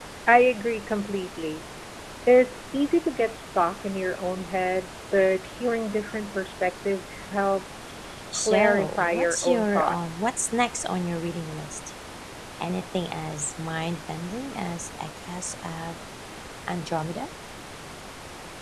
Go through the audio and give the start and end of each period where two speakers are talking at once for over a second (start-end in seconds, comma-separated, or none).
8.3-10.3